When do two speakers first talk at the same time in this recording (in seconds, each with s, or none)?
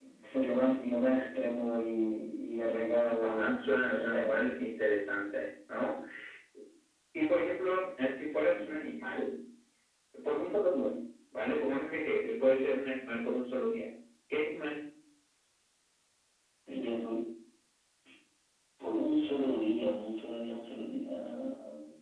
3.1 s